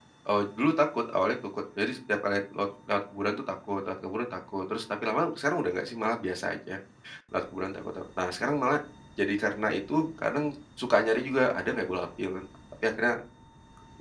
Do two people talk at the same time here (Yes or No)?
No